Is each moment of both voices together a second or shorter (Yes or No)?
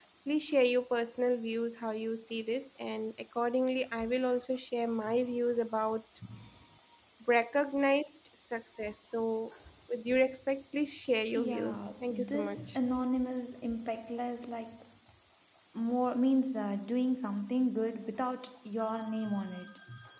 No